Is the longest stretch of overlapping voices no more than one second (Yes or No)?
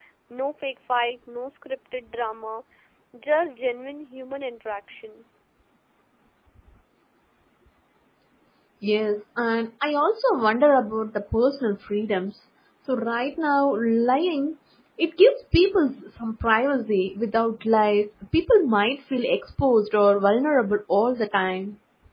Yes